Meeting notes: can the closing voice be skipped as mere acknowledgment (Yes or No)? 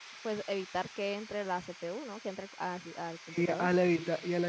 No